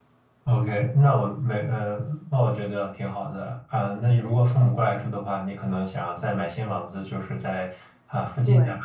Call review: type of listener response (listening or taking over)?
listening